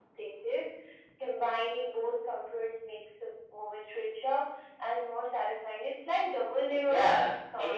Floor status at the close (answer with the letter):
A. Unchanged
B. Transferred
B